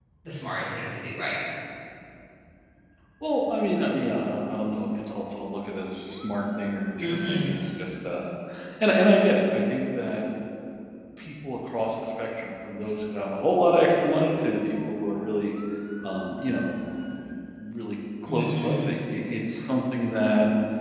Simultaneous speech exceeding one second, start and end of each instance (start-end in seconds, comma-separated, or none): none